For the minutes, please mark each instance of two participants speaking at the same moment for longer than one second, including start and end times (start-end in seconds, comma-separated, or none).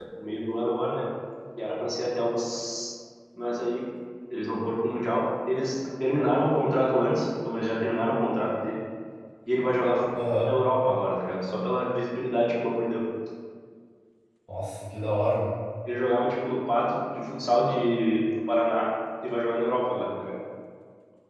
none